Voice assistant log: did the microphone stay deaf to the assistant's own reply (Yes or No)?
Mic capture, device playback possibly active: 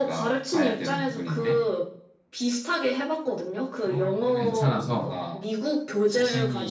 No